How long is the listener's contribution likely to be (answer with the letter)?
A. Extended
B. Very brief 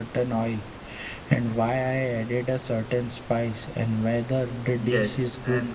A